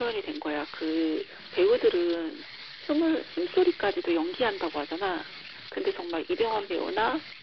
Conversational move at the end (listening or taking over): listening